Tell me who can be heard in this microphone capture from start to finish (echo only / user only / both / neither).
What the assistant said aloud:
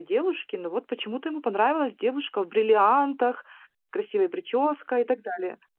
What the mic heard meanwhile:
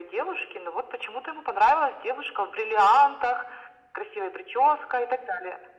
echo only